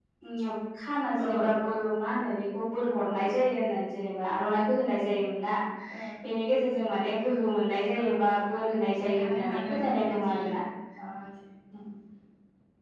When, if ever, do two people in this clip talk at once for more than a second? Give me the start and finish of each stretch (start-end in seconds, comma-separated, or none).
9.0-10.4